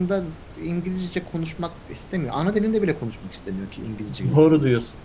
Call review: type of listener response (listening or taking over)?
taking over